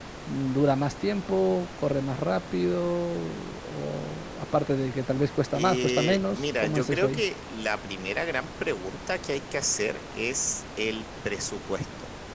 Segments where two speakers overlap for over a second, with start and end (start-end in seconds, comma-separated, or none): 5.5-7.2